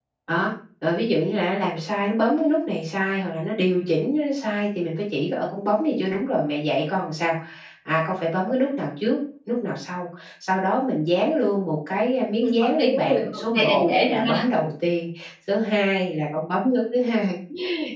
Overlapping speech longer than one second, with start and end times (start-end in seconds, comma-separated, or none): 12.4-14.4